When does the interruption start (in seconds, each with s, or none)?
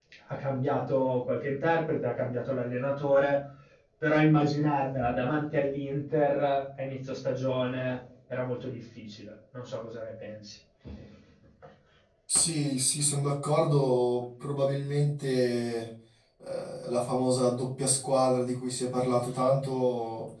none